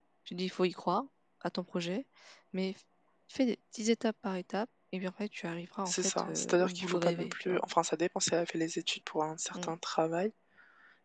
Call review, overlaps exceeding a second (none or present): present